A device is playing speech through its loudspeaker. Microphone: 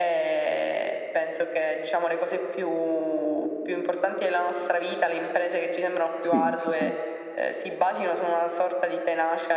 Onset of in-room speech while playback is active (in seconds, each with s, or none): 6.2 s